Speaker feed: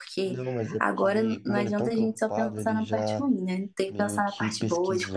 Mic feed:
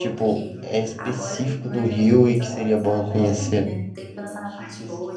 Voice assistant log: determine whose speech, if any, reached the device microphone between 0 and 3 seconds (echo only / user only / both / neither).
both